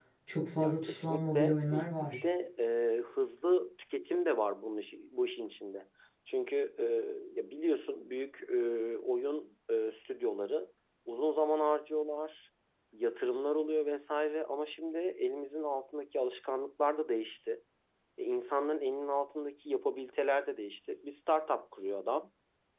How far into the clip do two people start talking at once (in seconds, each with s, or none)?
0.6 s